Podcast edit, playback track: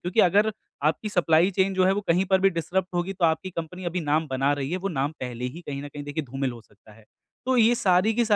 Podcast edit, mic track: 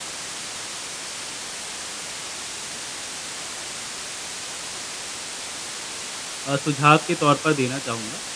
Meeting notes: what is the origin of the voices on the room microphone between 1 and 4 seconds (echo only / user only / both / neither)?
neither